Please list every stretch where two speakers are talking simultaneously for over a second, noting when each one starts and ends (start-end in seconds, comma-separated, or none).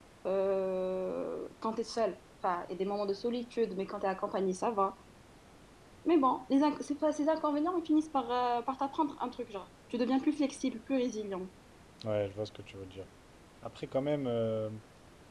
none